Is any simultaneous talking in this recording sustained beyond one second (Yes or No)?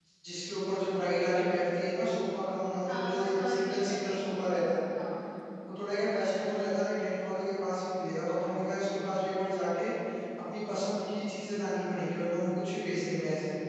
Yes